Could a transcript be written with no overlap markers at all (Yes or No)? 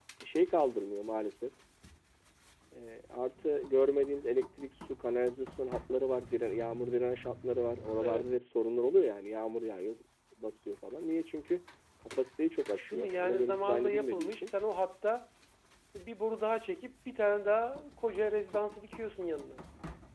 No